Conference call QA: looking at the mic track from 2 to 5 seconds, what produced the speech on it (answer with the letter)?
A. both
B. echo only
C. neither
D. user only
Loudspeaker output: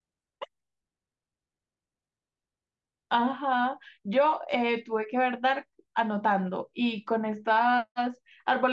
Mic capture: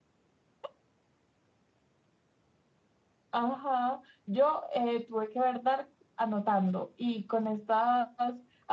B